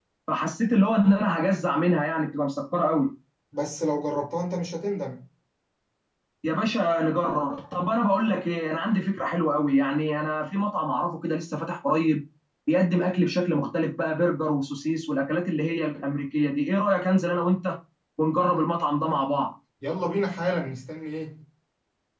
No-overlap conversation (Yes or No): Yes